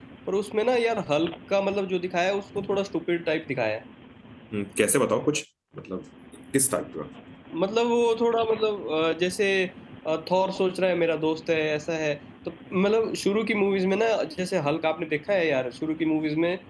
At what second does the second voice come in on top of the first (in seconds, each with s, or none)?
none